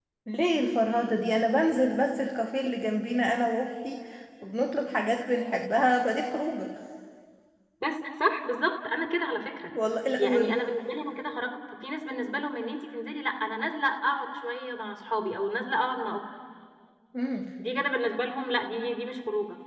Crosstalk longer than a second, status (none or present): none